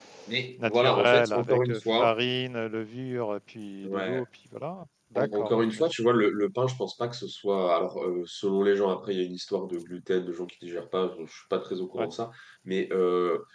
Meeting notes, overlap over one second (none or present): present